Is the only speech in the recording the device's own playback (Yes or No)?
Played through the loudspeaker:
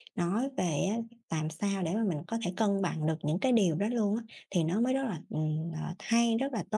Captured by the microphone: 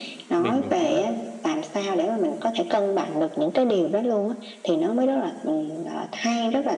No